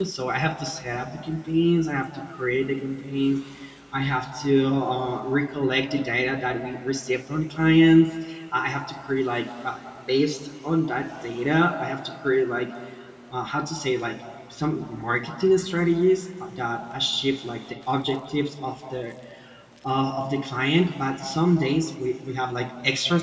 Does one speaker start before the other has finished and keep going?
No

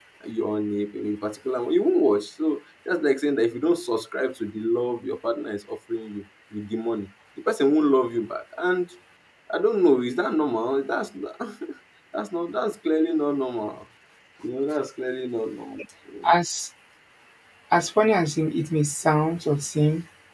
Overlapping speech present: No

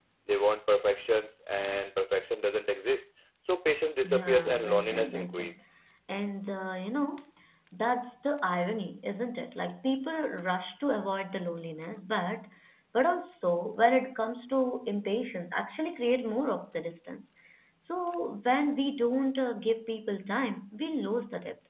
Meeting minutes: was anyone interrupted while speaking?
Yes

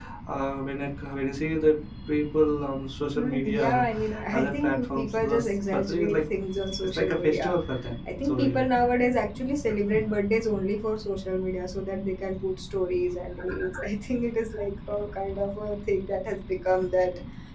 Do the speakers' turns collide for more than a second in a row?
Yes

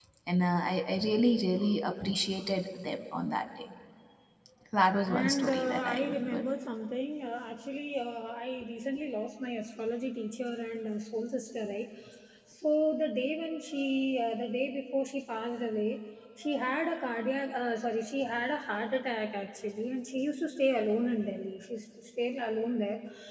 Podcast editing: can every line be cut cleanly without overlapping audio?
No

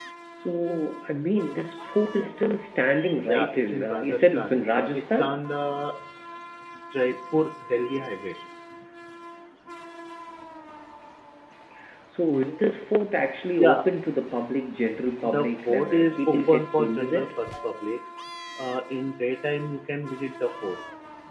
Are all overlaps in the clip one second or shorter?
No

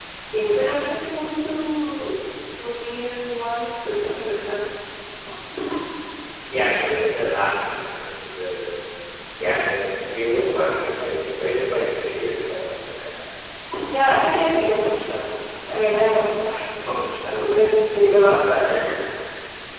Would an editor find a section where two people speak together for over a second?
No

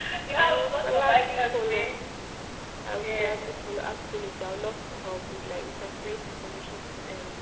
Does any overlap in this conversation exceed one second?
Yes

